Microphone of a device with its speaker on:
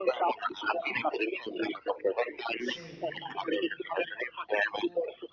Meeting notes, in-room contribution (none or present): present